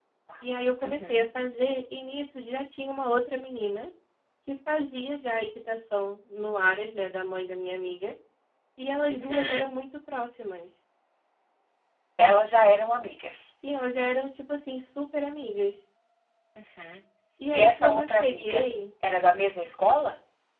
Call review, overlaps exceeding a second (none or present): present